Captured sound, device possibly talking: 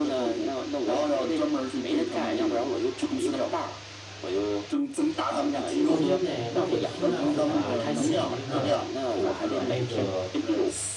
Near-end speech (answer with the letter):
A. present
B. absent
A